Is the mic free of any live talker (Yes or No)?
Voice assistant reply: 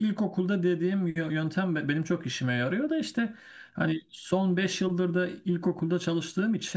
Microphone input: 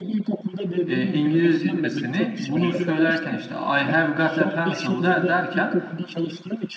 No